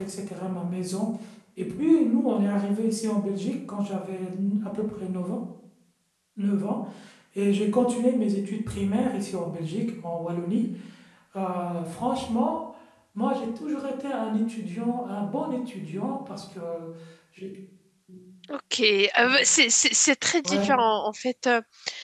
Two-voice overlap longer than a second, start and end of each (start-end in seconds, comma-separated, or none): none